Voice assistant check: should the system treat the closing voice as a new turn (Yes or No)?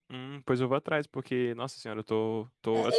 Yes